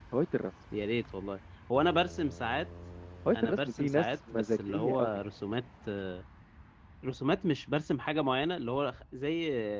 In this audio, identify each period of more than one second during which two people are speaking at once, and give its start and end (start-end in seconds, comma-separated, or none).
3.4-5.1